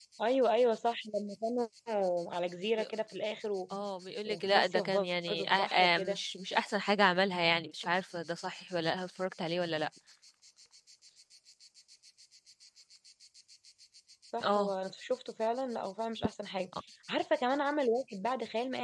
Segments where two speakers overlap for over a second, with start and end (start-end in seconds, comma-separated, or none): 4.2-6.2